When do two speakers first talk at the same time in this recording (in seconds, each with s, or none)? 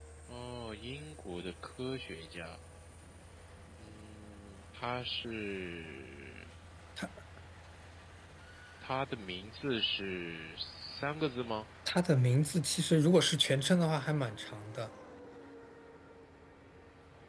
none